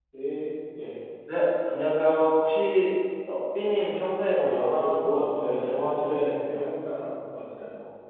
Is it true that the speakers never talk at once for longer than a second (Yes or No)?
No